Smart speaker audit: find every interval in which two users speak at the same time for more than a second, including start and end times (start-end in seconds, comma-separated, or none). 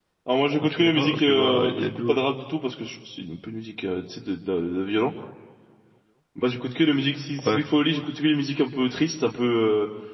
0.6-2.1